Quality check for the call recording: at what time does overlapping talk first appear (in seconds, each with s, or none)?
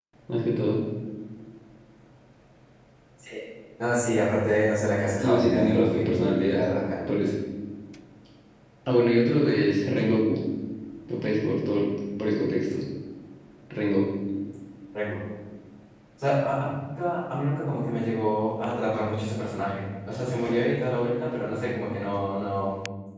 5.2 s